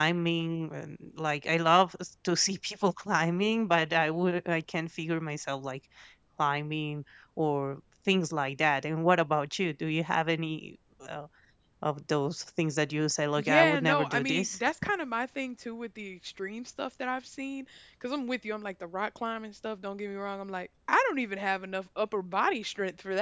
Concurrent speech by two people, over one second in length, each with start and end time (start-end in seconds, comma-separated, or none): 13.4-14.6